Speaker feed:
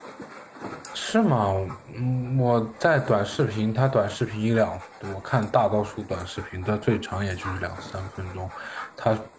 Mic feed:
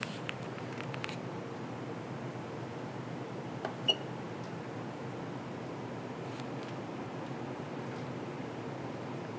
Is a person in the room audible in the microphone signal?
No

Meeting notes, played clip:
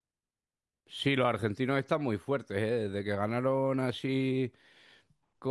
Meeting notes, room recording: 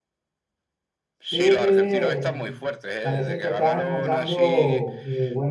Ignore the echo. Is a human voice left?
Yes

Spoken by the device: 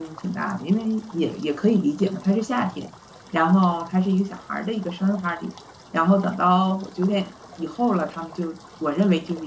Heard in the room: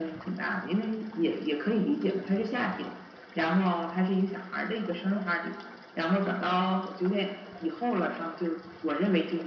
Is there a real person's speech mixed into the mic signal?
No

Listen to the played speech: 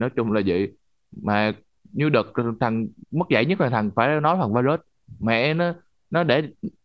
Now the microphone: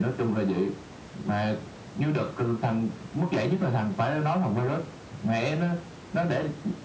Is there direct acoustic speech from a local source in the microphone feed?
No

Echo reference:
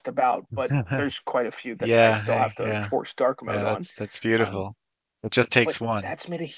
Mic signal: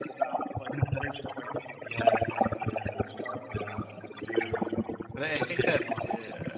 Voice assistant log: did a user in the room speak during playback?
Yes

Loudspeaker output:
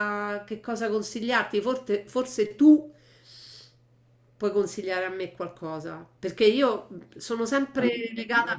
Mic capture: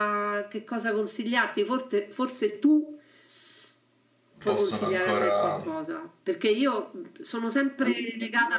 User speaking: Yes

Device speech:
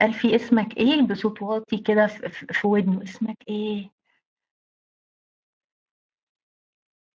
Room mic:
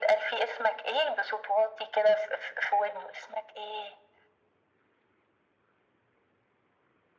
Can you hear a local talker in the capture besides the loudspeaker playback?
No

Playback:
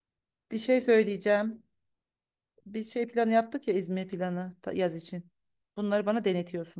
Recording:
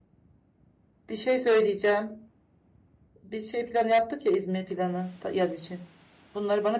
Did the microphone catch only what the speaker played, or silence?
Yes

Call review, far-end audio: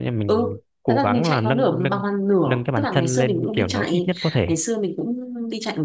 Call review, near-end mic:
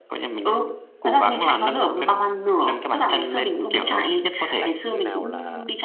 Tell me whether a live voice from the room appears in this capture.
Yes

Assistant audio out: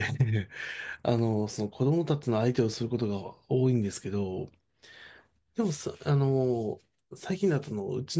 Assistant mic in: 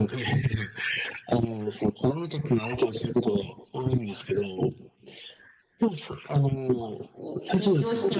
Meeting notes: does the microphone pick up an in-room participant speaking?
Yes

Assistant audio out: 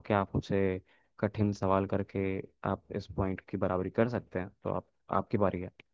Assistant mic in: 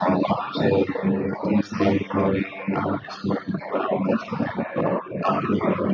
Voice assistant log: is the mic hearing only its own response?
Yes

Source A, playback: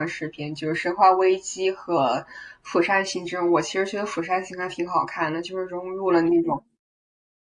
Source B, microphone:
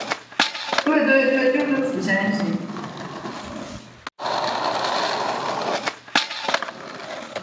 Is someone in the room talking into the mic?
Yes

